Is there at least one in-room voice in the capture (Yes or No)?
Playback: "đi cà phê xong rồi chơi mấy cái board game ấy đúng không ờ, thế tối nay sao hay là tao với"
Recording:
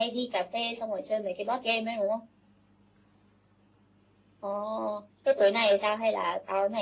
No